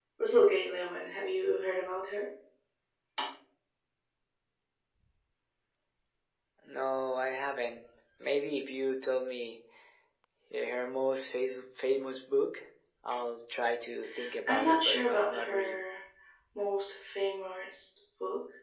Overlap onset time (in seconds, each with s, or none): 14.5 s